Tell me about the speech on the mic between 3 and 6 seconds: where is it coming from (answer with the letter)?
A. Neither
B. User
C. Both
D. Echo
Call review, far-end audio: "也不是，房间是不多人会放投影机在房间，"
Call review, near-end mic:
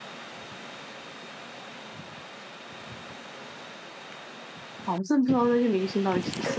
B